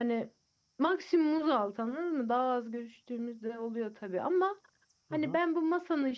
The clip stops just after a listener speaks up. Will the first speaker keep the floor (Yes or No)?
Yes